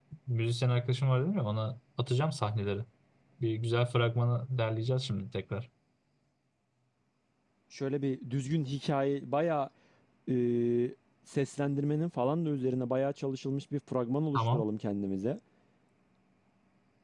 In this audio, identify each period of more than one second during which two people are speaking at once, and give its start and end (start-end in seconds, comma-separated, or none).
none